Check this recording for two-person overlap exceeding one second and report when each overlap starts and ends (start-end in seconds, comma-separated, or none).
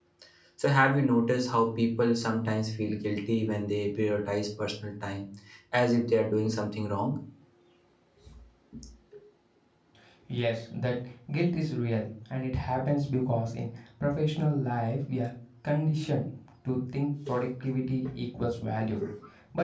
none